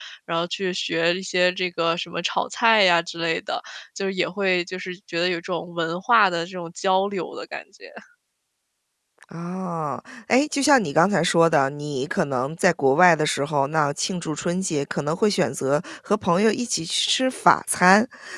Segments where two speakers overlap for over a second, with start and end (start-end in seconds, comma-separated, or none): none